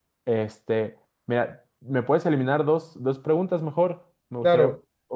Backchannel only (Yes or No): No